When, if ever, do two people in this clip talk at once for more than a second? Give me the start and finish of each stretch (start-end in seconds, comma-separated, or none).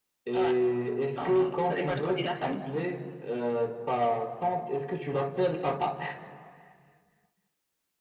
1.2-2.6